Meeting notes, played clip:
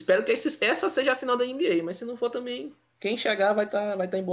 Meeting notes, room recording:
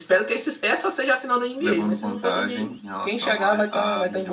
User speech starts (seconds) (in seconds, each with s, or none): 1.6 s